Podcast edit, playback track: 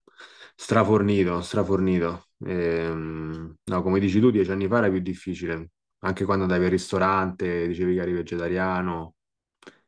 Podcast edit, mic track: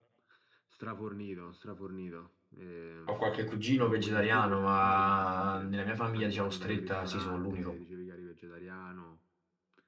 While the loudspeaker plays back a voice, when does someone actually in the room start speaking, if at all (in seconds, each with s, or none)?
3.0 s